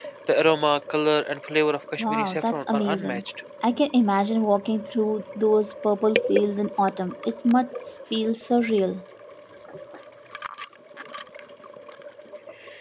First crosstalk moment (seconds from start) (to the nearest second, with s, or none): 2 s